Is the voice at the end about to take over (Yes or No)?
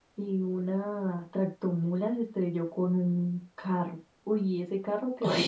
No